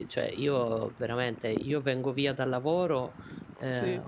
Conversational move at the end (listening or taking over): listening